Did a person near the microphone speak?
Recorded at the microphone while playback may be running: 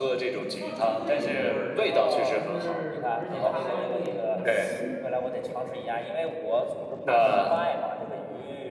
Yes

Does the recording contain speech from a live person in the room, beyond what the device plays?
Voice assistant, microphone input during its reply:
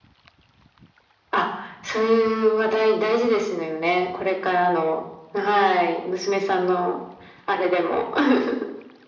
No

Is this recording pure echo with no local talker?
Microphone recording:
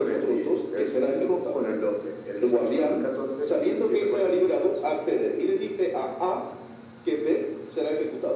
Yes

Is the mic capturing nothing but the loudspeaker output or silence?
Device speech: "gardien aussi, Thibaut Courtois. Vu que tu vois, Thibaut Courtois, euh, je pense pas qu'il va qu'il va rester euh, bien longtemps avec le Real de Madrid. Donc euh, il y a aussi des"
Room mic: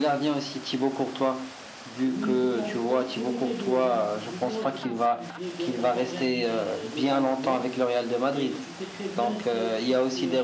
No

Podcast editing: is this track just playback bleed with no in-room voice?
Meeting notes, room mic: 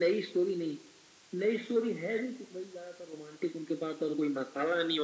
Yes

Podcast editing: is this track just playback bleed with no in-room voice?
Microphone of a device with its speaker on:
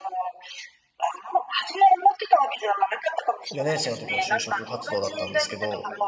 No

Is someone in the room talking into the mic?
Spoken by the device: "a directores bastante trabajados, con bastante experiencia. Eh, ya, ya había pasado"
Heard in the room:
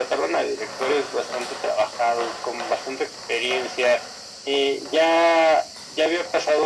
No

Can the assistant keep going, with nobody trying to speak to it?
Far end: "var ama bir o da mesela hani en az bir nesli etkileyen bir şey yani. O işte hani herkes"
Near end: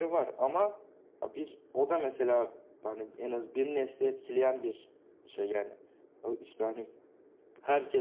Yes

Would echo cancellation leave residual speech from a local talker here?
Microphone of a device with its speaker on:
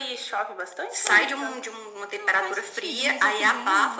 Yes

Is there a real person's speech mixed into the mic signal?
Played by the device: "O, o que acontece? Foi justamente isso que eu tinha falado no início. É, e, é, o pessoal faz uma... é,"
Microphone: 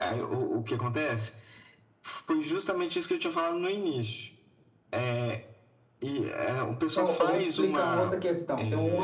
Yes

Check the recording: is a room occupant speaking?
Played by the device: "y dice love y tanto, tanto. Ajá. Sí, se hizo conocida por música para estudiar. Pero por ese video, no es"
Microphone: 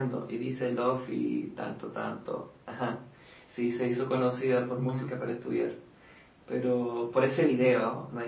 Yes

